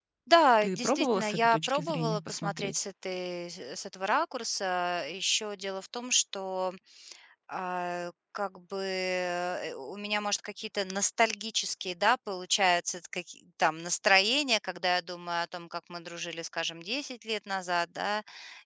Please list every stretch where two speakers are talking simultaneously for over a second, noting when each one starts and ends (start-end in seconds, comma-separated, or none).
0.6-2.8